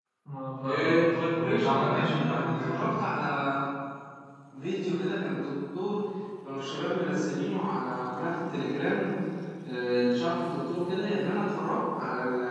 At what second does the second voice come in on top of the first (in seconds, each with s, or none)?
0.6 s